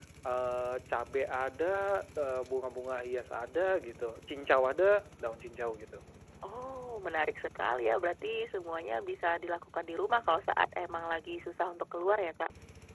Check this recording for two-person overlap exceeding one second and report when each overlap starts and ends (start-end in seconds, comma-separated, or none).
none